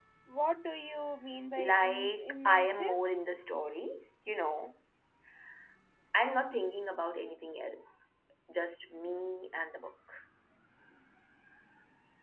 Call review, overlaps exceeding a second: present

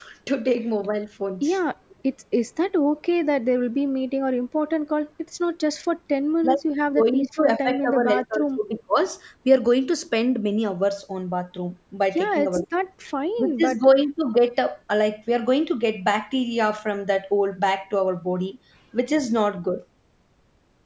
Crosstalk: present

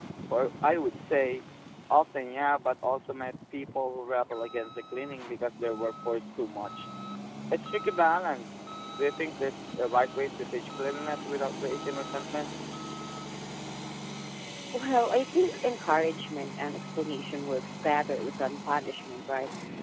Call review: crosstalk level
none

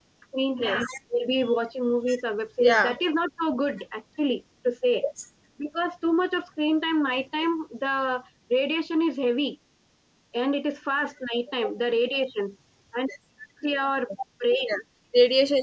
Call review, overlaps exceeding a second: none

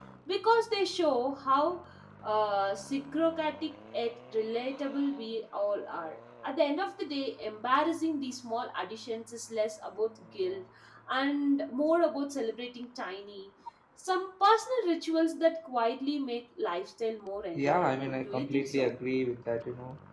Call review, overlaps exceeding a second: present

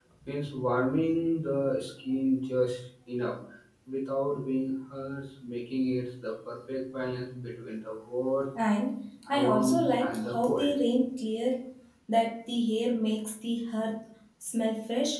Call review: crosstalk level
present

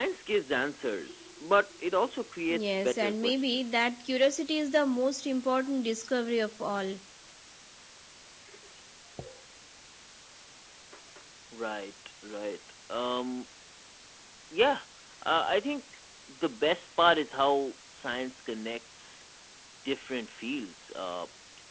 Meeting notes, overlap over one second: present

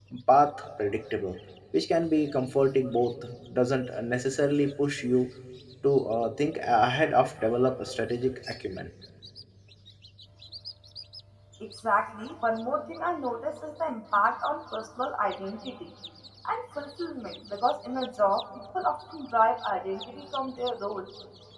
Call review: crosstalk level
none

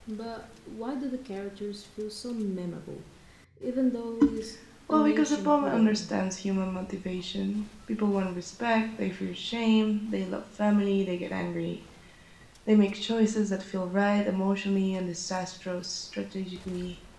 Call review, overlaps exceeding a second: present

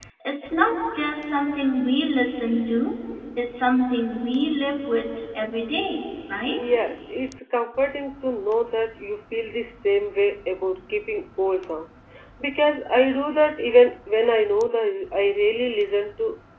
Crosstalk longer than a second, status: none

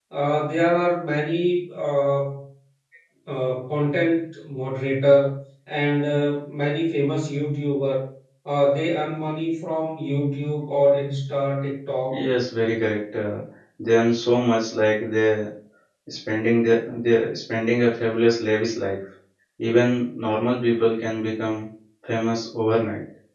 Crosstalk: none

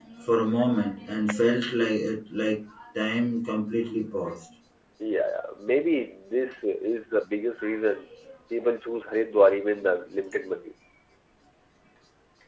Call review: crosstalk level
none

